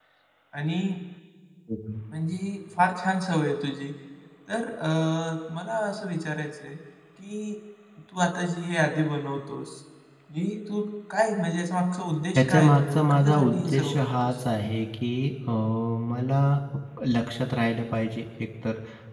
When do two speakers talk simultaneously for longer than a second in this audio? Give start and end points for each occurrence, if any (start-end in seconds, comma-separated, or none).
12.4-14.4